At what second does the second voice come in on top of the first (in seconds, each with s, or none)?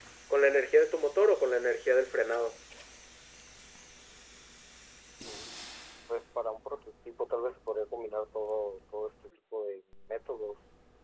none